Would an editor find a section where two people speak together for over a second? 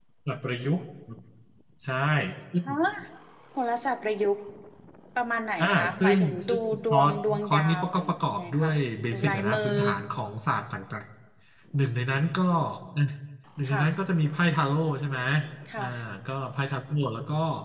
Yes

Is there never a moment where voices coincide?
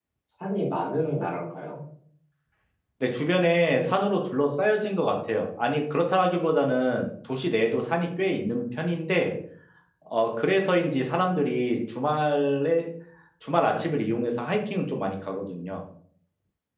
Yes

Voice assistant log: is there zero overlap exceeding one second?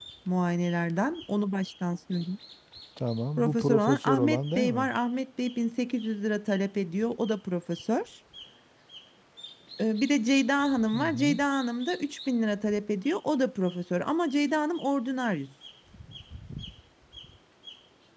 No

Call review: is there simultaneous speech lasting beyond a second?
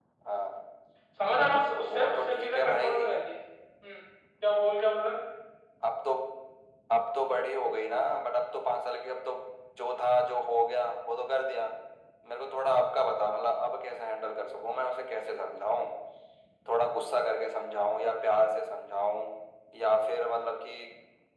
Yes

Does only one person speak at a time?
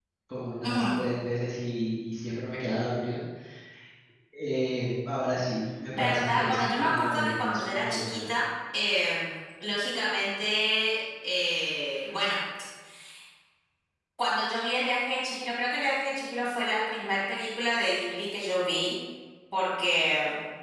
No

